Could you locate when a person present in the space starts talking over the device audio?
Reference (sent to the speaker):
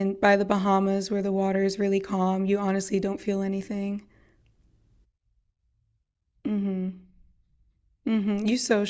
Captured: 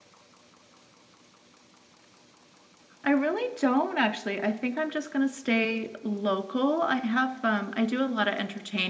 3.0 s

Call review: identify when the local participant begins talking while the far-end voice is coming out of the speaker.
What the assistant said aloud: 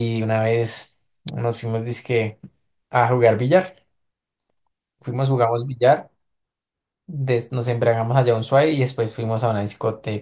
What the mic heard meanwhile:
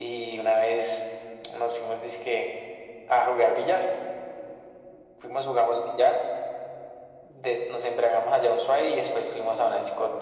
none

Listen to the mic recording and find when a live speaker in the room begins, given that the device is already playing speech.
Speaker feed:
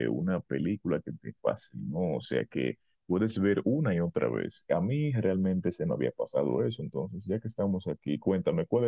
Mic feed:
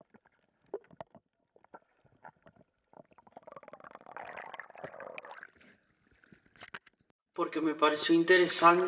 7.3 s

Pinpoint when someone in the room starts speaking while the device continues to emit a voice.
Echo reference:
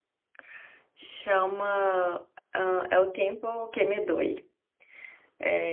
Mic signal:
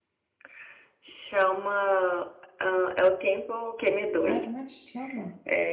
4.2 s

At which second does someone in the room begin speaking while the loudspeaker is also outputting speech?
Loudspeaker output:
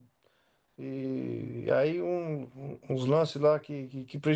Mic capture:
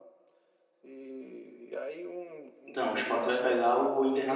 2.6 s

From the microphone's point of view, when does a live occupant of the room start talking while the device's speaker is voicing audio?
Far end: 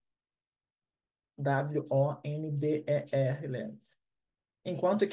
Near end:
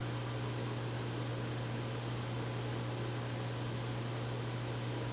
none

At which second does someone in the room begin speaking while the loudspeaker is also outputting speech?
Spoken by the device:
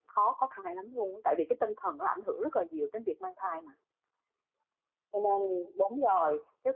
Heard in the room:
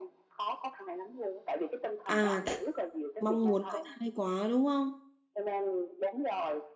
2.1 s

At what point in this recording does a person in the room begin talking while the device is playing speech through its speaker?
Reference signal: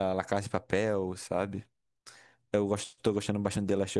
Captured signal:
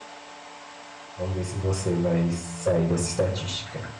1.1 s

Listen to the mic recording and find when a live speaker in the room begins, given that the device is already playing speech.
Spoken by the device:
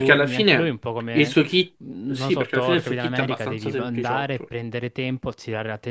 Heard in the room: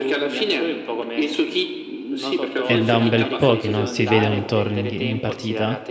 2.6 s

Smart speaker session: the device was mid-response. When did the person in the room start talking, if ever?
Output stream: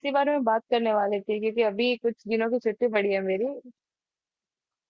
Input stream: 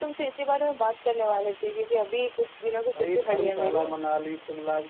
3.0 s

